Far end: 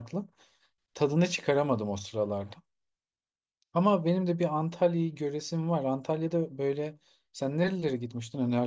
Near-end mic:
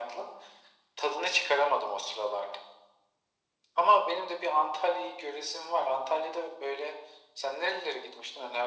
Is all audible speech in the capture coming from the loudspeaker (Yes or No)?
Yes